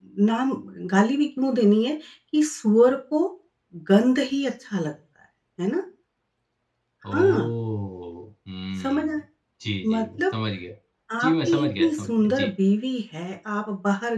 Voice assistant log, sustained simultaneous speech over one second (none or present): present